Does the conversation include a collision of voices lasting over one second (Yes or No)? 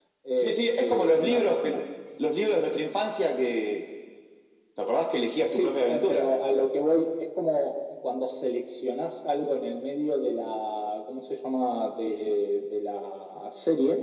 Yes